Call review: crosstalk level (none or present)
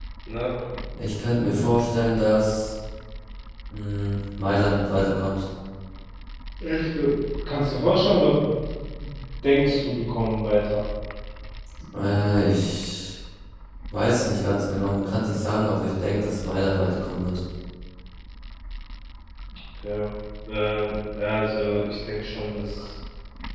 none